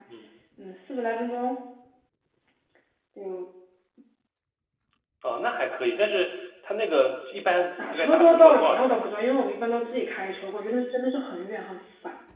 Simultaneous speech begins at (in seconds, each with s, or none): 7.8 s